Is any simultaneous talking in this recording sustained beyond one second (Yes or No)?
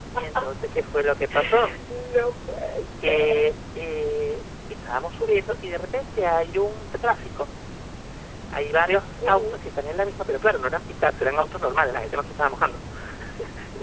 No